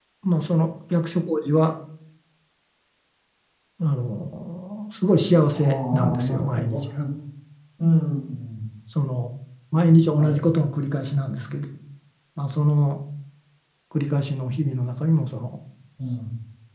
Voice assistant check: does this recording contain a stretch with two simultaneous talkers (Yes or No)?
Yes